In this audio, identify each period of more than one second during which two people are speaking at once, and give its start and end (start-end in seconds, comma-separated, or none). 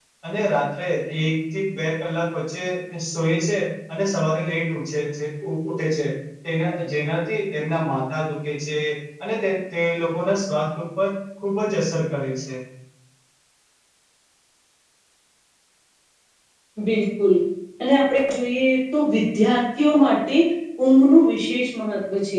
none